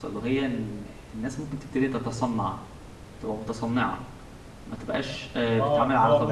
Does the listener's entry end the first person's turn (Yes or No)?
Yes